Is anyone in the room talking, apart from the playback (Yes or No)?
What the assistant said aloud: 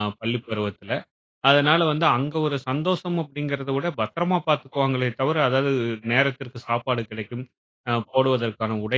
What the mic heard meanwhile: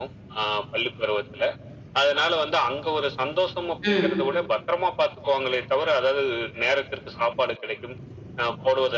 Yes